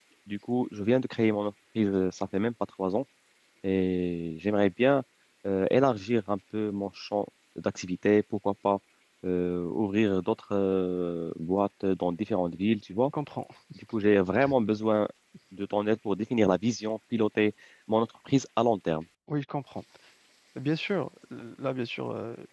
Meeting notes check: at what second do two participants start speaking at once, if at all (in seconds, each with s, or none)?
none